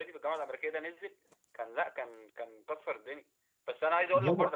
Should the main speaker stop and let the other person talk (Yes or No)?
No